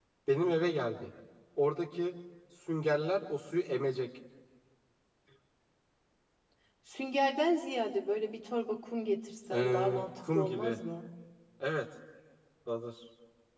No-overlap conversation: No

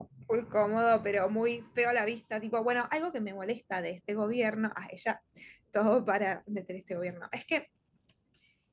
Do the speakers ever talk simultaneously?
No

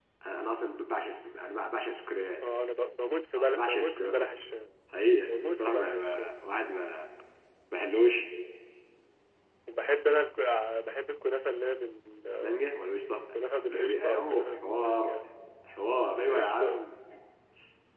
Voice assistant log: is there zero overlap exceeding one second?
No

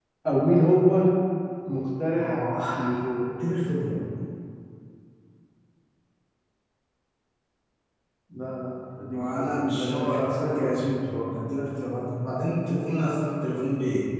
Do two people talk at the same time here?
Yes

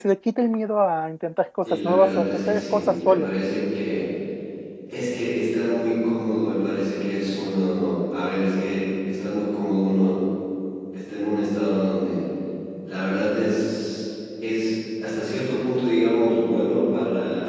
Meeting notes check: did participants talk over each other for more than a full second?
Yes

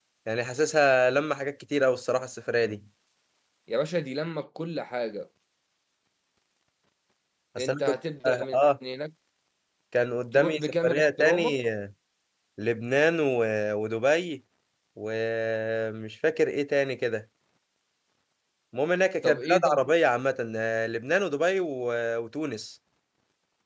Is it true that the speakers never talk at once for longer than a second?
No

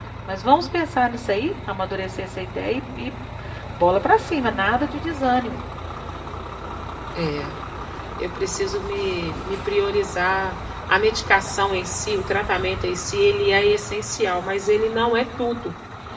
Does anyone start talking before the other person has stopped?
No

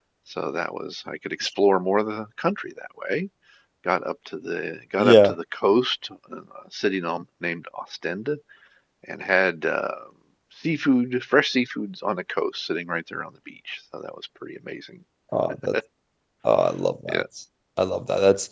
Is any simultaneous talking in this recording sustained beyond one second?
No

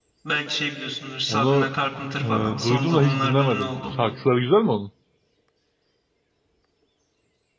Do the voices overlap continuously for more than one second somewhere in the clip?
Yes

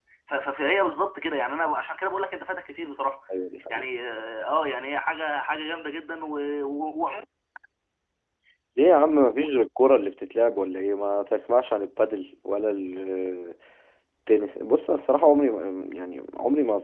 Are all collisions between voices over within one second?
Yes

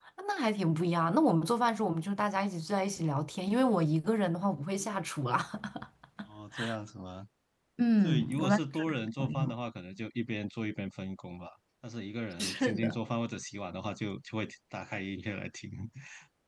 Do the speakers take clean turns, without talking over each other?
No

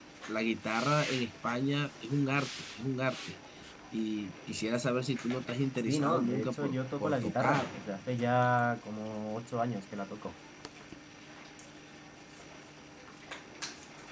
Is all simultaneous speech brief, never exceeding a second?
No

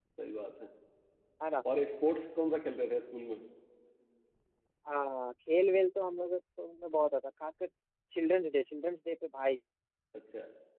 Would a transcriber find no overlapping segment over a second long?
Yes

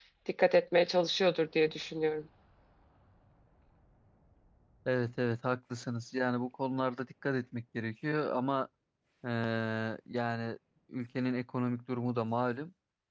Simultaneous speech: No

